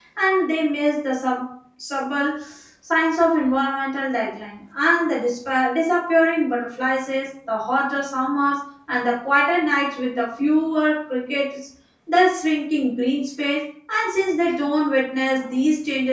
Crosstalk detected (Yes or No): No